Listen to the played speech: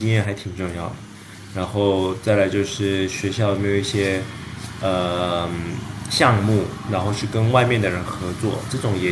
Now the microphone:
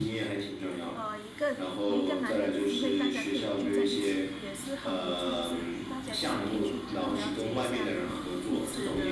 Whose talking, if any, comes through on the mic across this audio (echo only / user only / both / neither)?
both